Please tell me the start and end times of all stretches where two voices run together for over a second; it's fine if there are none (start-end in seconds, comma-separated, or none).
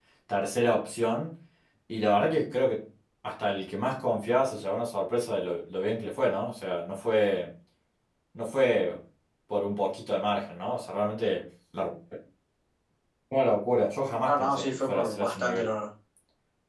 14.2-15.7